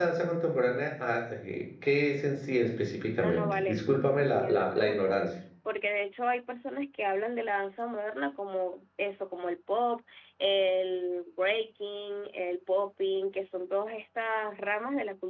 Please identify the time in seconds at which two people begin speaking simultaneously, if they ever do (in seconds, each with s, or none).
3.2 s